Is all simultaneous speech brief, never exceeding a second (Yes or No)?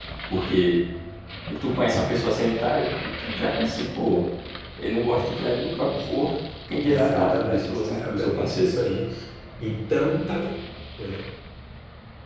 No